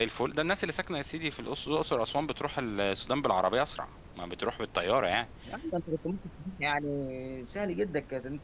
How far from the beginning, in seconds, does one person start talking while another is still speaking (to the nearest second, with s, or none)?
none